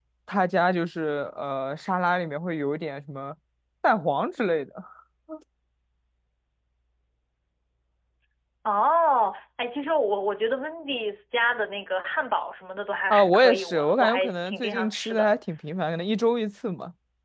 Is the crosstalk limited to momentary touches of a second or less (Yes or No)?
No